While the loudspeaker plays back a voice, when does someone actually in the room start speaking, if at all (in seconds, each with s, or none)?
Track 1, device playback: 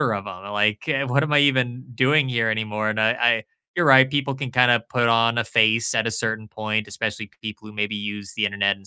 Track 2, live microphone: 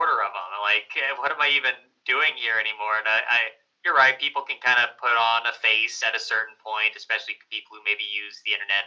none